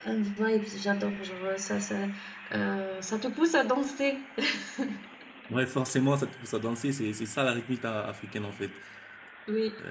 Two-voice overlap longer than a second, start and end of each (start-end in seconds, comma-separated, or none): none